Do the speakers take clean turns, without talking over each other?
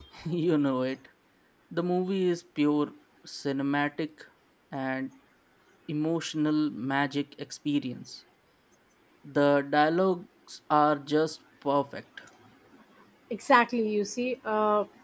Yes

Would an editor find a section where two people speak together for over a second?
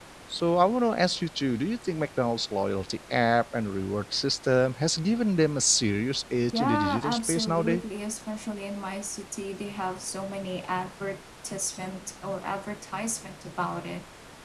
Yes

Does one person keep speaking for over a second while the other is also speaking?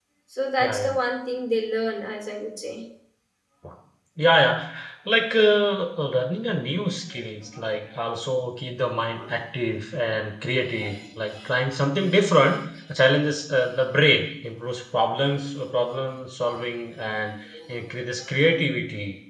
No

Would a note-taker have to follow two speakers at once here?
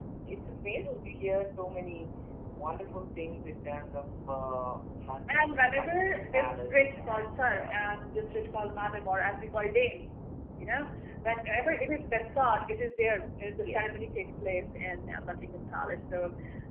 Yes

